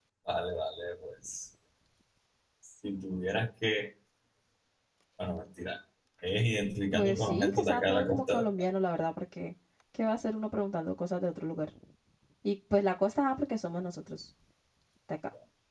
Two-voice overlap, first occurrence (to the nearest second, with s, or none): 7 s